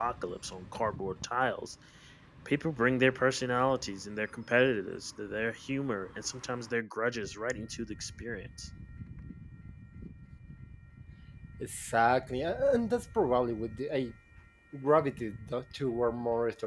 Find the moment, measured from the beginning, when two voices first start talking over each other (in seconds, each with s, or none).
none